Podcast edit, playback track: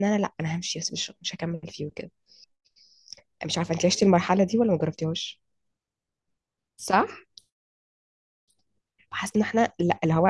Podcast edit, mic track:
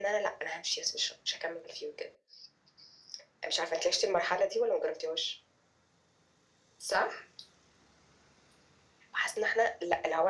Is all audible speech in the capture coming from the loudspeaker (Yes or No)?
Yes